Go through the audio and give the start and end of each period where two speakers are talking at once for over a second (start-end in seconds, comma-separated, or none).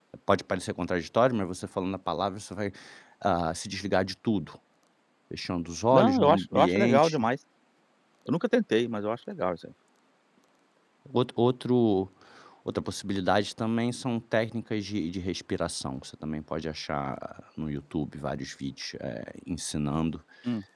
5.9-7.3